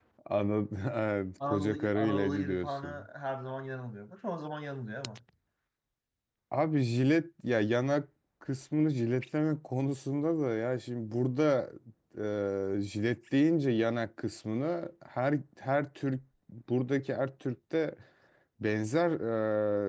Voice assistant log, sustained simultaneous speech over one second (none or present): present